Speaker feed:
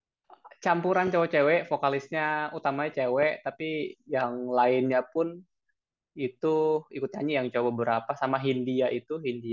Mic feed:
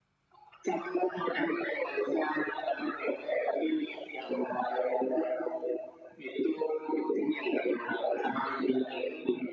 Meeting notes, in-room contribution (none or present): none